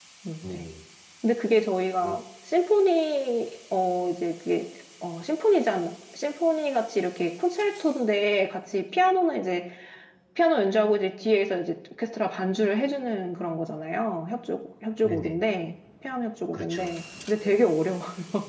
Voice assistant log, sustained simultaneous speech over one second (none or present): none